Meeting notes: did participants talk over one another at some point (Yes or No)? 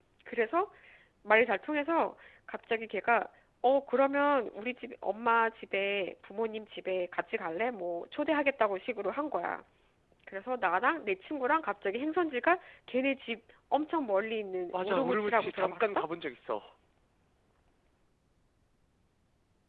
Yes